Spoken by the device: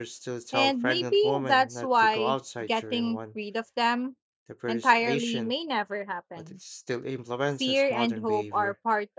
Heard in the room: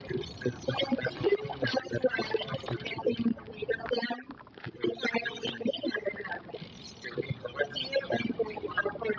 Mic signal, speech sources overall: echo only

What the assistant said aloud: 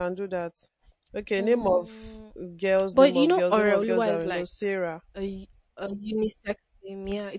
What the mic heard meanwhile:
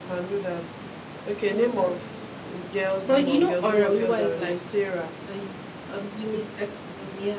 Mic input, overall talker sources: echo only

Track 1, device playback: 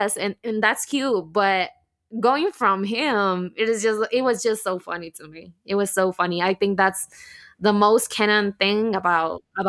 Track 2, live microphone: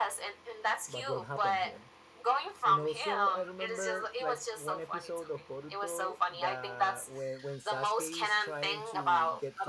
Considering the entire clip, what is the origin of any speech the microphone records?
both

